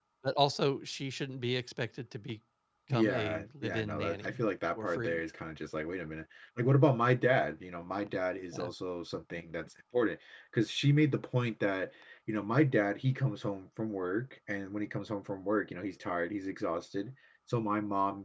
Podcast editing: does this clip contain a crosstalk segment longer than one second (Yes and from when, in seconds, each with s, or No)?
Yes, from 2.9 s